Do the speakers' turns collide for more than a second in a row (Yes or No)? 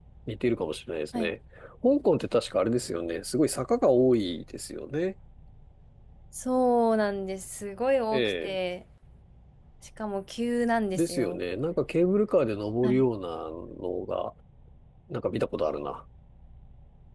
No